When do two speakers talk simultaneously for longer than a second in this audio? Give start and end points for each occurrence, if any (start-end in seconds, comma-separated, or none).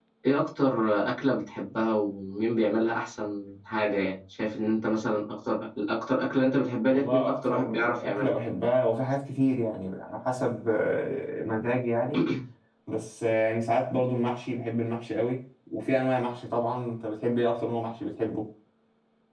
6.9-8.3